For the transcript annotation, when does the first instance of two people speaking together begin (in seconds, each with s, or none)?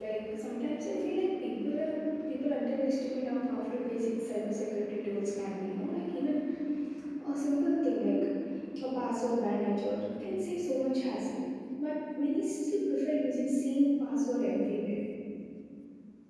none